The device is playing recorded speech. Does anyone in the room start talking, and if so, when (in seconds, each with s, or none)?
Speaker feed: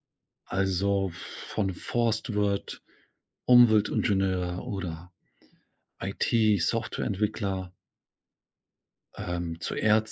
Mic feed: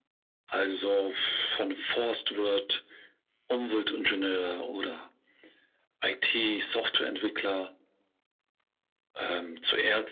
none